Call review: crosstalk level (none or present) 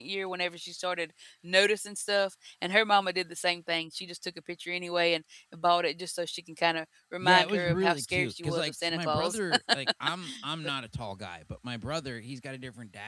present